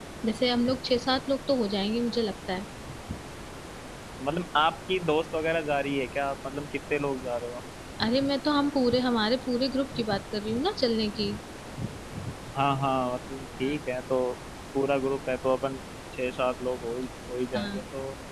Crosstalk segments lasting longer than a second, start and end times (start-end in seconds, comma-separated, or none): none